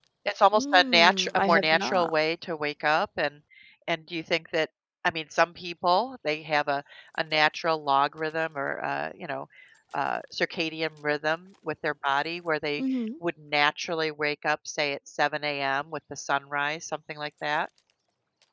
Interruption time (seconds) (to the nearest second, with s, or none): 1 s